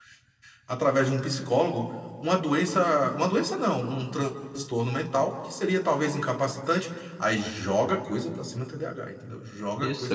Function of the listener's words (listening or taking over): taking over